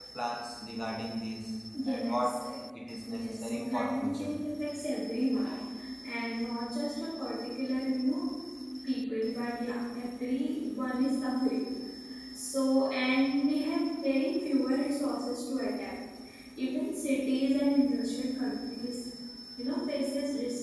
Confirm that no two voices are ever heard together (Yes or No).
No